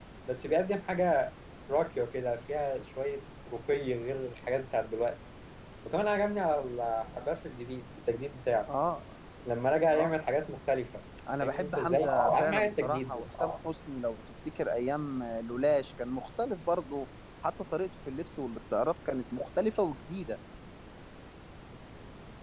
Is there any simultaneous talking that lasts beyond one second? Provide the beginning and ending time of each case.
11.4-13.3

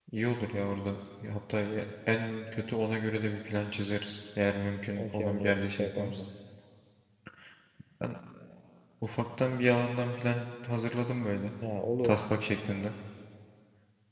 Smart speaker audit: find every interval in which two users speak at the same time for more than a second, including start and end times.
5.0-6.2

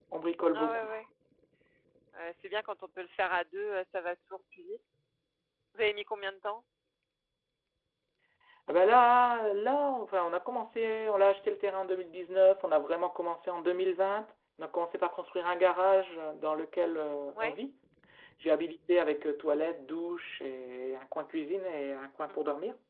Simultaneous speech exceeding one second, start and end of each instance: none

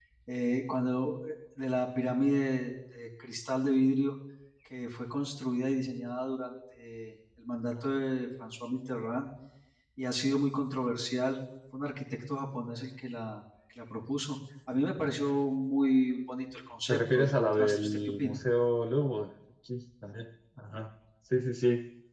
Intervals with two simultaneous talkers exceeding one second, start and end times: 16.9-18.4

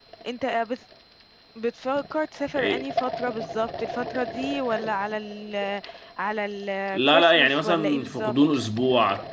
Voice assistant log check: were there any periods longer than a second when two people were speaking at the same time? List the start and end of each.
6.9-8.6

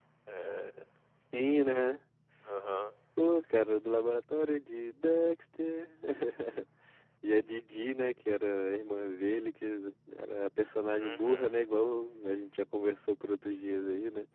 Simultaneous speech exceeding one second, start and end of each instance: none

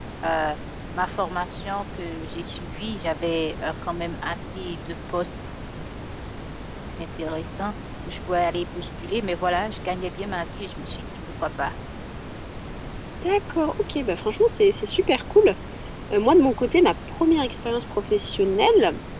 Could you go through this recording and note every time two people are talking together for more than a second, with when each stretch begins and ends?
none

